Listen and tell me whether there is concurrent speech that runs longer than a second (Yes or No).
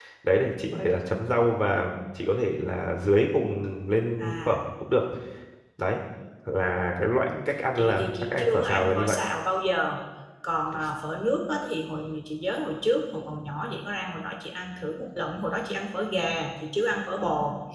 Yes